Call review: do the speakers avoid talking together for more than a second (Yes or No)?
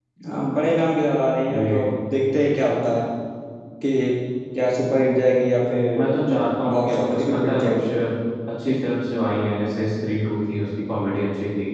No